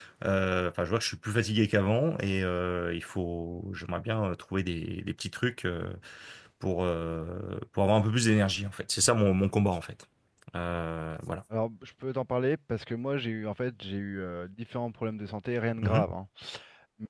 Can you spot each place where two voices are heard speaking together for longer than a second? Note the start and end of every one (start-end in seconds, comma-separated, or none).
none